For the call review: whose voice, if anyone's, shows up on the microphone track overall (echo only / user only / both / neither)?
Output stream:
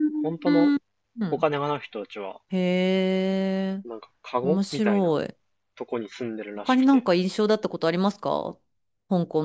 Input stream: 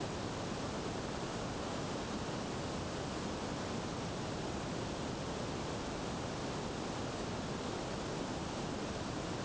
neither